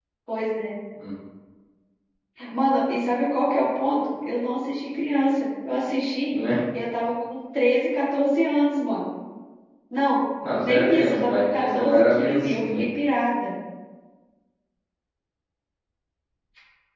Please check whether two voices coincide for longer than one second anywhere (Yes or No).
Yes